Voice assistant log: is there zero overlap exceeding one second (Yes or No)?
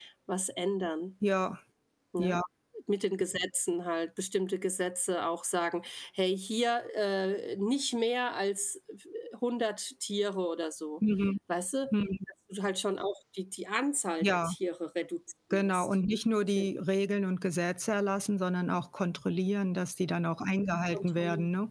Yes